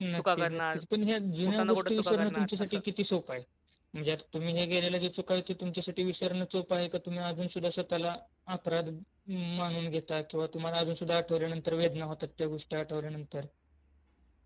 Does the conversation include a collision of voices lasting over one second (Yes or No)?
Yes